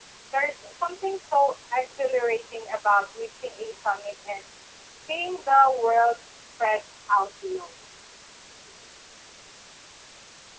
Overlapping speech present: No

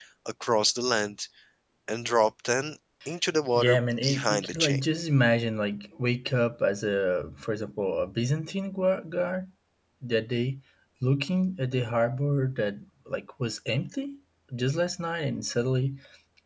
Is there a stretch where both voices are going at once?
Yes, from 3.5 s

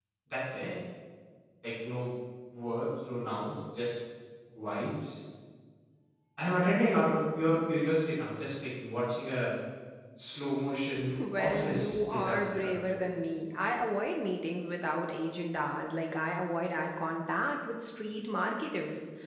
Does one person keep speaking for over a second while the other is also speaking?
Yes, from 11.4 s

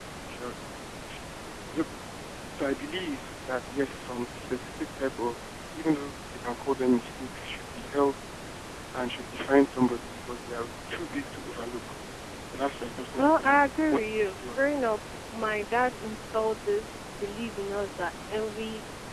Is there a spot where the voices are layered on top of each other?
Yes, from 13.2 s

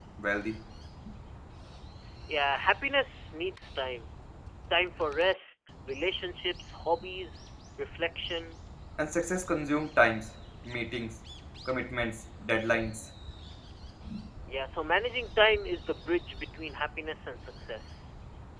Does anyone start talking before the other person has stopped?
No

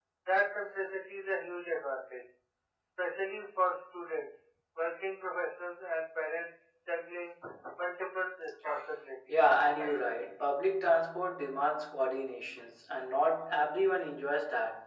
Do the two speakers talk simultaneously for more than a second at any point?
No

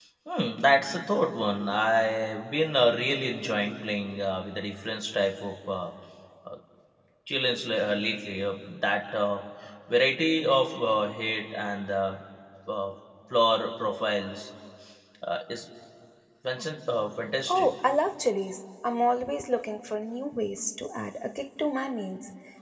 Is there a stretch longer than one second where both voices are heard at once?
No

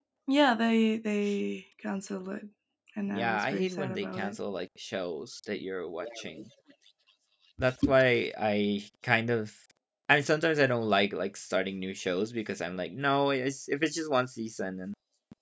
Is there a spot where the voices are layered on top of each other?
Yes, from 3.1 s

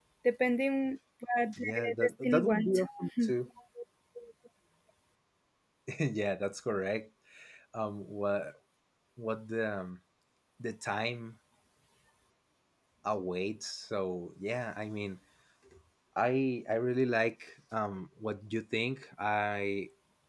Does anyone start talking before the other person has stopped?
Yes, from 1.6 s

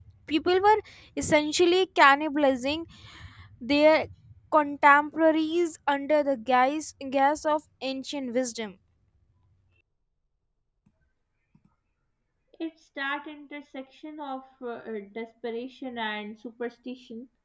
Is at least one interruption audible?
No

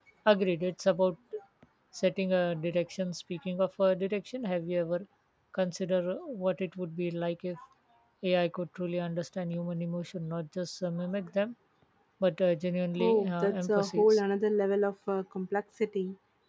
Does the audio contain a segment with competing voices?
Yes, from 13.0 s

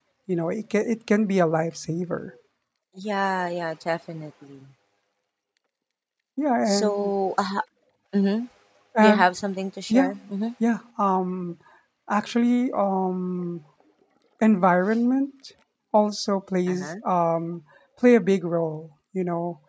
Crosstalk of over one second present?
No

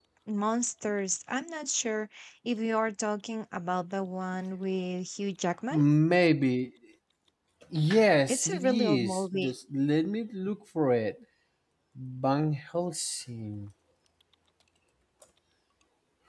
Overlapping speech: Yes, from 8.3 s

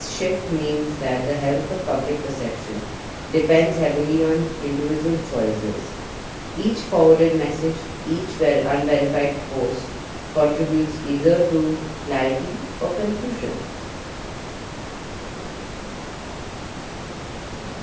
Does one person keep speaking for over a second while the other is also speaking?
No

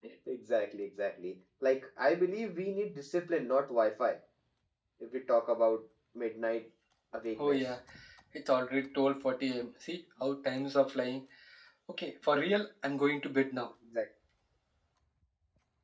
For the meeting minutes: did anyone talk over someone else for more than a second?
No

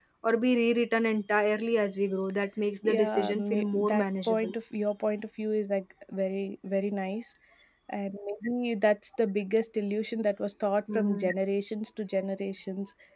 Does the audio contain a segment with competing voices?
Yes, from 2.9 s

